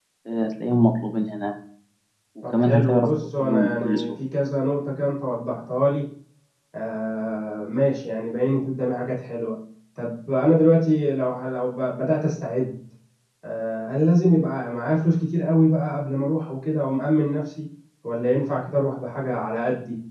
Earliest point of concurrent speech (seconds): 2.5 s

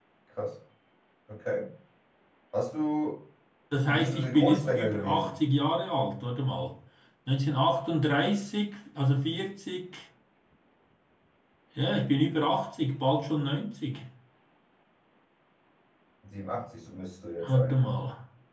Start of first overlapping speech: 3.9 s

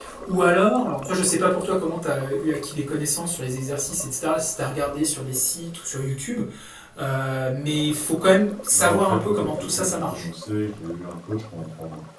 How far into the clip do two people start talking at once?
8.7 s

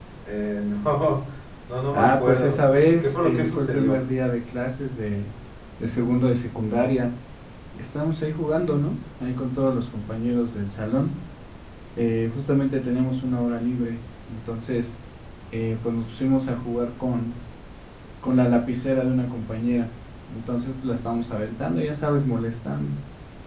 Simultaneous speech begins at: 1.9 s

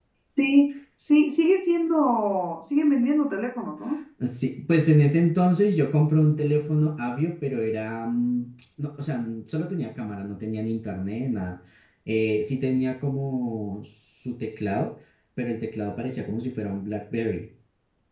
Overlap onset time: none

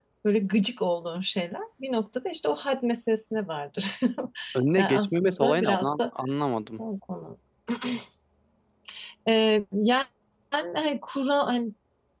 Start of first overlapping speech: 4.8 s

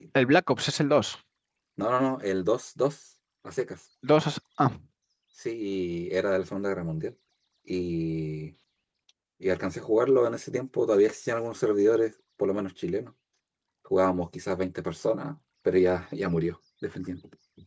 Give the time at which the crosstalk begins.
none

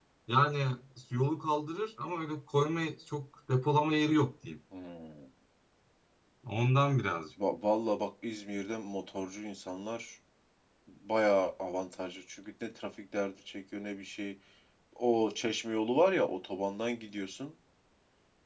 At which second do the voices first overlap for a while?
none

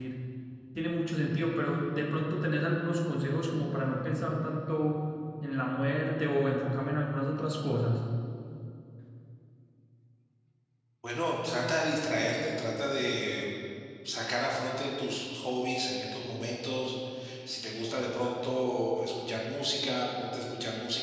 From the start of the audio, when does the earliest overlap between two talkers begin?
none

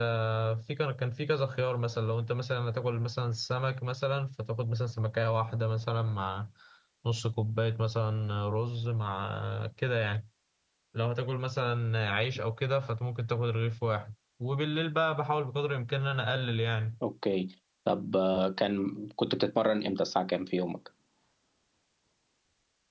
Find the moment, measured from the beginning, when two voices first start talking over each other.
none

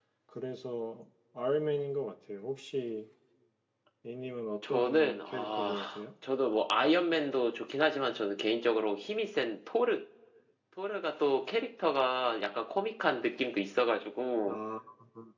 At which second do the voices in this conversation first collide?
4.7 s

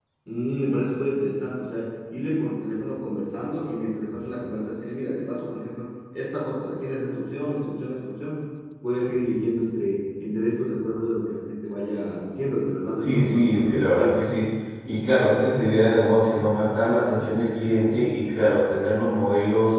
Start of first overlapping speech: 13.0 s

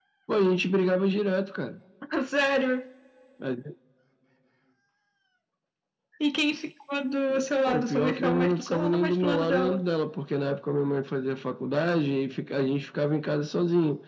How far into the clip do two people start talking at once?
7.3 s

